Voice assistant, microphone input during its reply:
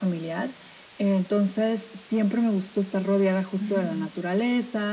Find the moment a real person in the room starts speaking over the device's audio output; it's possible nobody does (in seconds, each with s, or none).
3.6 s